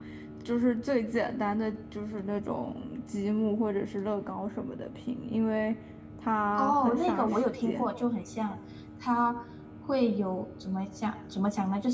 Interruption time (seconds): 6.6 s

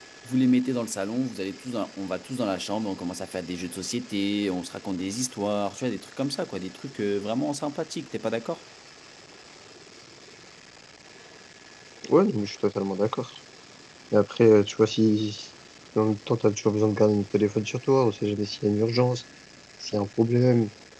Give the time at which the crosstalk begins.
none

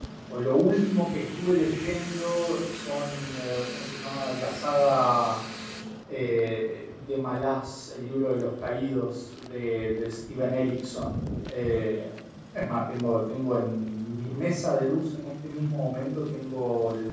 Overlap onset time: none

